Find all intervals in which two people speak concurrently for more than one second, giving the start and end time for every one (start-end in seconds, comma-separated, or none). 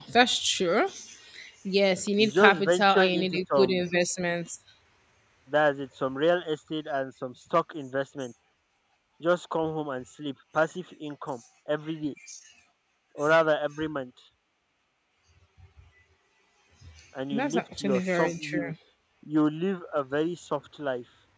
2.2-3.8, 17.3-18.7